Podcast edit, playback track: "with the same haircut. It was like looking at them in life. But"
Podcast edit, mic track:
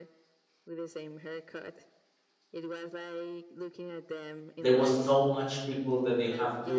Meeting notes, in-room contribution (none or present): present